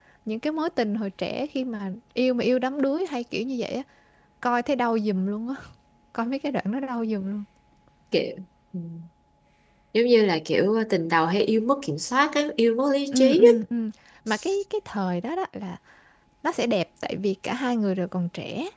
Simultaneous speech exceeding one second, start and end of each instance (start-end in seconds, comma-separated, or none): none